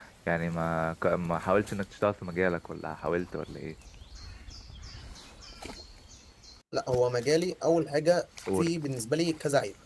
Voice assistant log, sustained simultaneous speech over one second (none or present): none